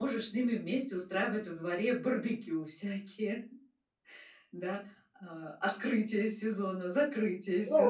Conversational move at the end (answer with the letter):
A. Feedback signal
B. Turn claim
B